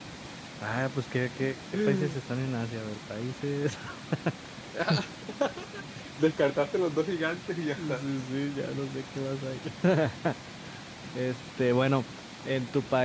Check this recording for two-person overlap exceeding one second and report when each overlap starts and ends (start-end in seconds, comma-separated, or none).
none